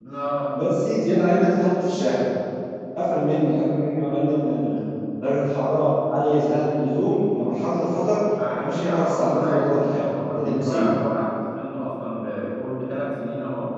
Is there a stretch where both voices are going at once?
Yes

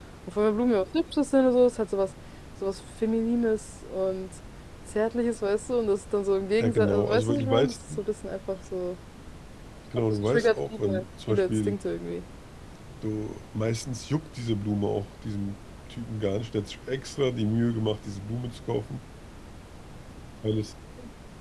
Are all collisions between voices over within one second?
No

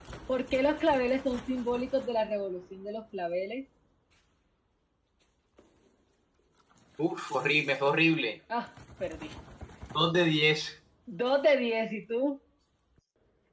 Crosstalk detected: No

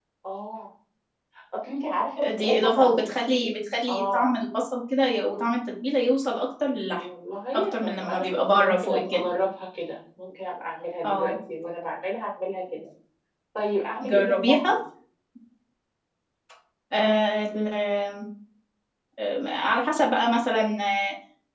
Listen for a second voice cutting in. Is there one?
Yes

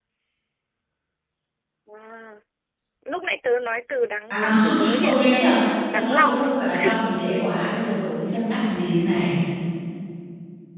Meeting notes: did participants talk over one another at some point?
Yes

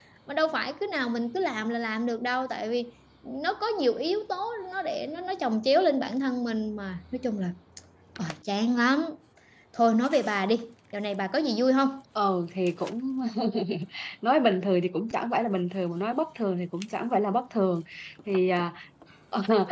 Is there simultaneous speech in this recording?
No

